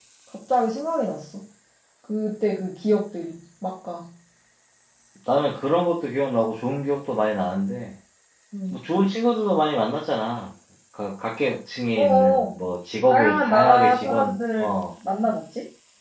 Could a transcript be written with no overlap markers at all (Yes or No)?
No